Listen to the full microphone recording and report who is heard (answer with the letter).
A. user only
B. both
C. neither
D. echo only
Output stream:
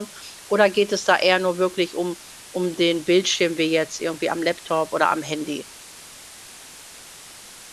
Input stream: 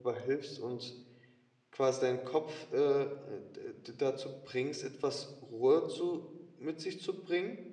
A